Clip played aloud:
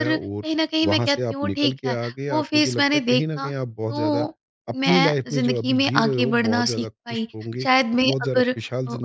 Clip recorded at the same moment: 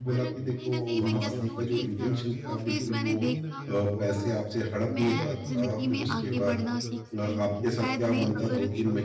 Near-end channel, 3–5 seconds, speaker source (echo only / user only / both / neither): both